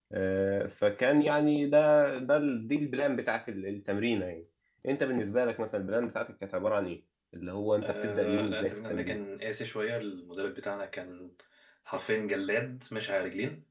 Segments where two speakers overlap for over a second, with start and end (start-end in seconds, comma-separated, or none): 7.8-9.2